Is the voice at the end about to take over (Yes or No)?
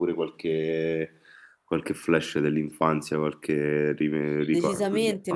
Yes